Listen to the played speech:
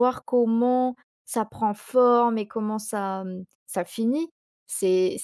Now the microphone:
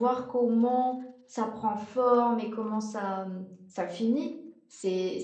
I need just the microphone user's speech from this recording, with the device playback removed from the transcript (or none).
none